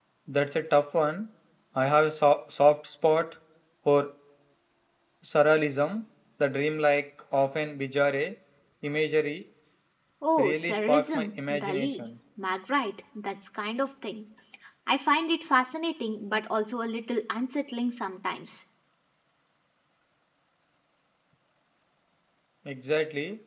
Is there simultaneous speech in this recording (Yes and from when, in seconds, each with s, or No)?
Yes, from 10.4 s